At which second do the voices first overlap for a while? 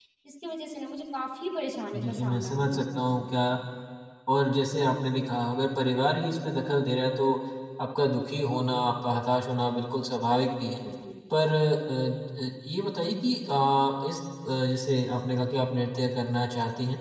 2 s

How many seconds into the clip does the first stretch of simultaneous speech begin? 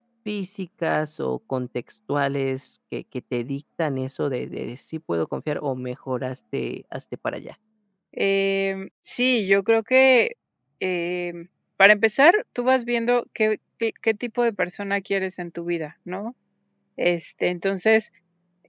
none

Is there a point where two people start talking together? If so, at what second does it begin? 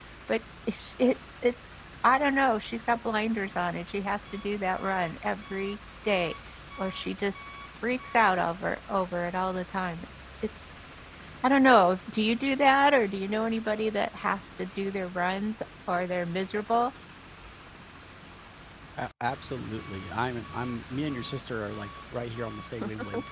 none

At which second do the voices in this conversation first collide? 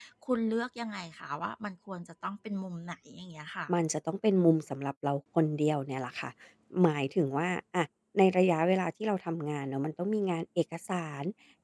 none

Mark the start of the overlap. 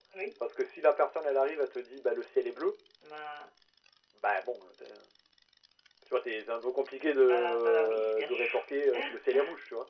7 s

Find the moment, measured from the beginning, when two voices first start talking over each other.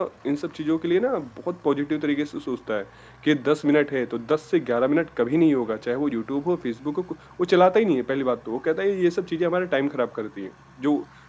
none

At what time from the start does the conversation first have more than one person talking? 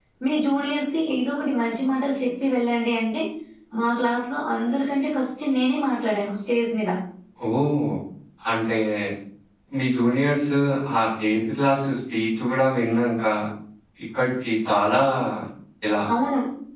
none

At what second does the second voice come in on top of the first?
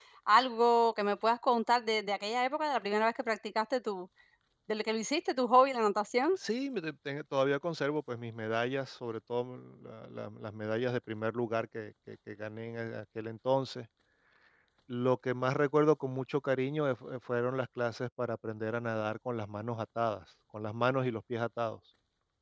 none

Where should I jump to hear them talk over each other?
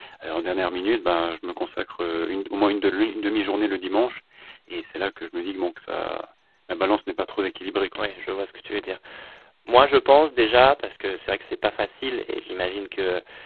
none

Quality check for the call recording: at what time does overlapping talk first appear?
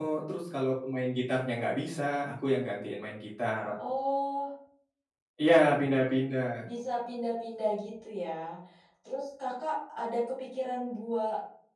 none

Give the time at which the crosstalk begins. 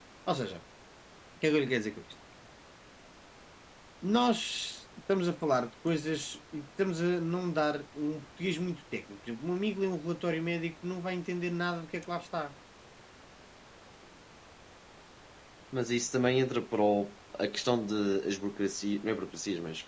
none

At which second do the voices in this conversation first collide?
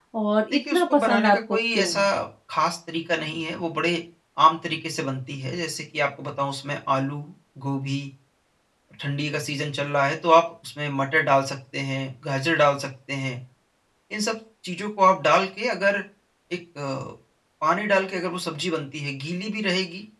1 s

